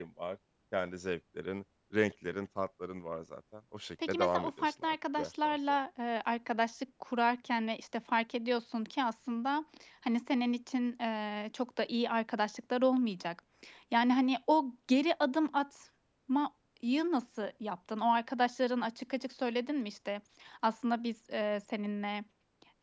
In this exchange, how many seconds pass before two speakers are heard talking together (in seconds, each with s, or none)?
4.0 s